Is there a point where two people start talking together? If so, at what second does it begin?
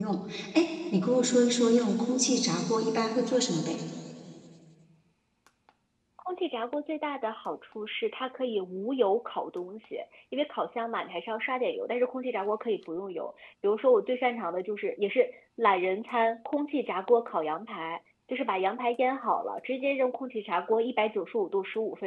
none

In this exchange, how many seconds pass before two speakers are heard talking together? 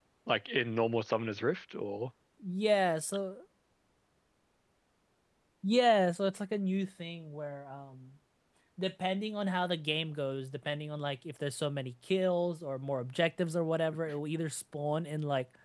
none

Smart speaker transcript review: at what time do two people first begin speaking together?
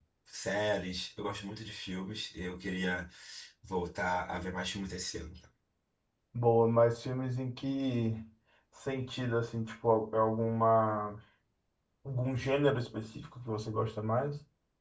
none

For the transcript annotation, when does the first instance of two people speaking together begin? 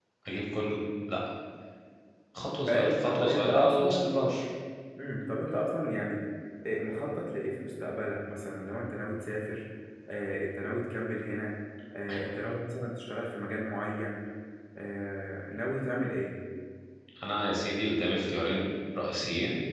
3 s

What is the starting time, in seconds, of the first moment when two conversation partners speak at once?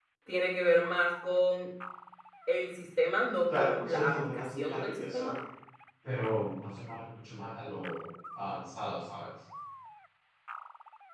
3 s

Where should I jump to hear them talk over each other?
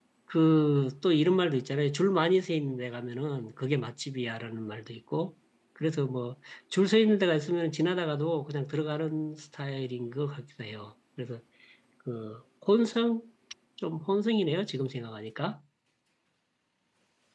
none

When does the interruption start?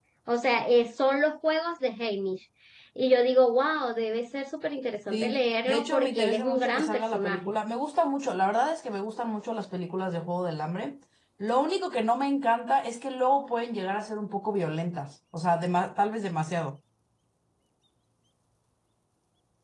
5 s

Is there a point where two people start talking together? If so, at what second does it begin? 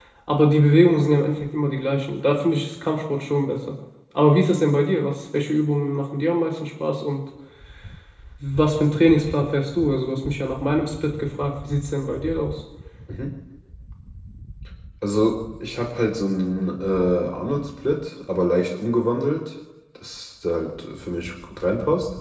none

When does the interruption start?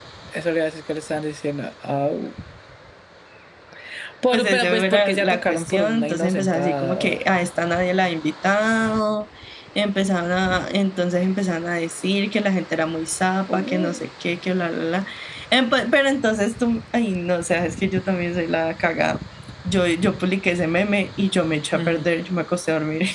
4 s

